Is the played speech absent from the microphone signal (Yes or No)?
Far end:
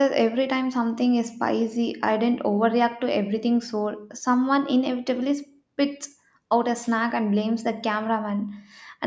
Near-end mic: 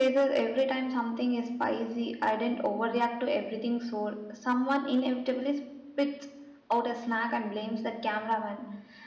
No